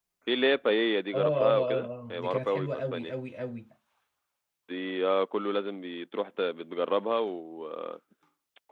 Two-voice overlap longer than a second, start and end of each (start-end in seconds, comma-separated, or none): 1.1-3.1